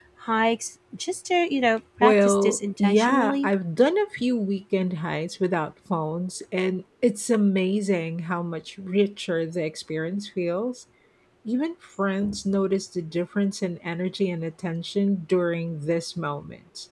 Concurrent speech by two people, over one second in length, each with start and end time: 2.0-3.5

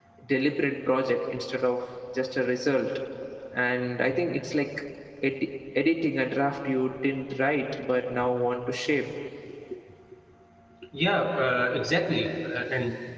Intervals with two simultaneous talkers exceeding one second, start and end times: none

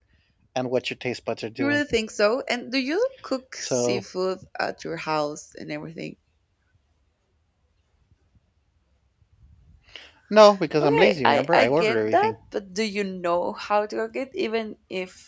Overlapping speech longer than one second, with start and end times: 10.8-12.3

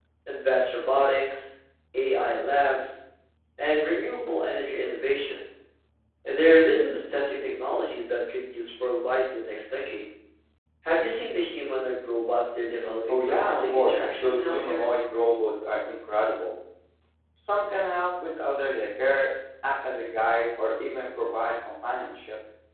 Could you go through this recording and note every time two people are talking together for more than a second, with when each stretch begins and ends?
13.1-14.8

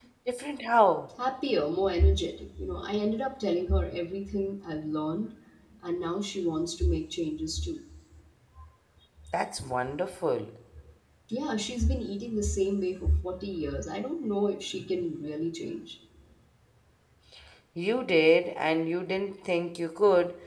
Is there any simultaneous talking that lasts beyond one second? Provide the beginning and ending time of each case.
none

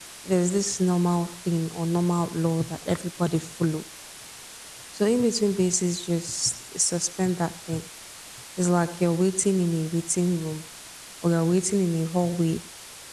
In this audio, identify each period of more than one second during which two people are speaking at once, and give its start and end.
none

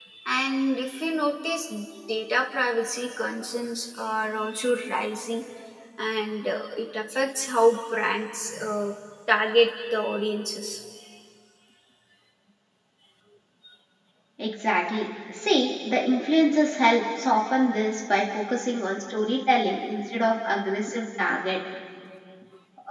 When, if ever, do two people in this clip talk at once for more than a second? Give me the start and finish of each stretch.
none

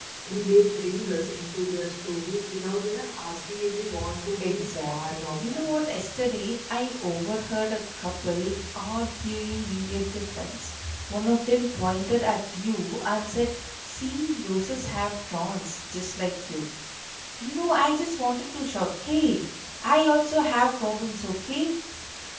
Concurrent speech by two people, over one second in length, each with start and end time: 4.4-5.7

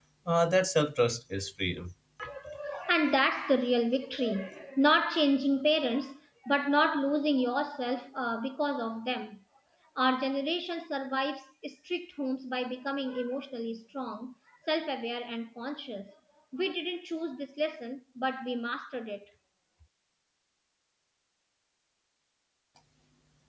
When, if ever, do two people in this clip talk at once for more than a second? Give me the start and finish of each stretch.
none

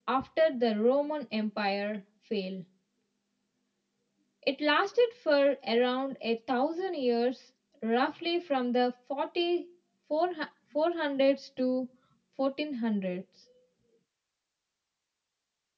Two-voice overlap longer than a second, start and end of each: none

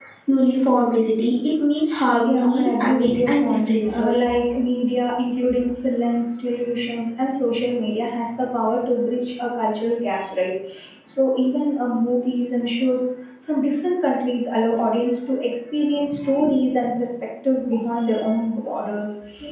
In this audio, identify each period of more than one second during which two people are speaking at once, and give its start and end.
2.2-4.4

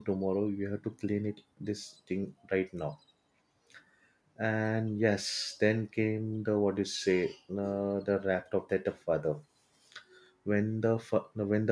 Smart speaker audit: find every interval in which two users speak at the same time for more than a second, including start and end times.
none

